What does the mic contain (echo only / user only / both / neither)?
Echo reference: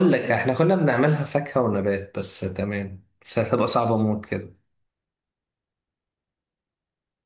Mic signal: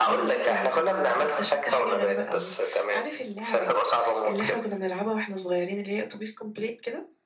both